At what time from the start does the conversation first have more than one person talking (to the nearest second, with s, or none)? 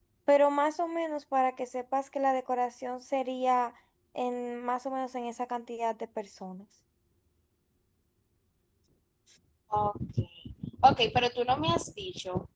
none